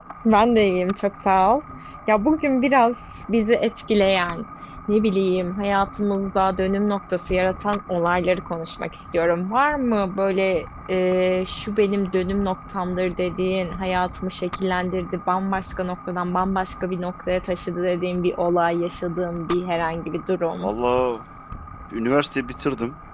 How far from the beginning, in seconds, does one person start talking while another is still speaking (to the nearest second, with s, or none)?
none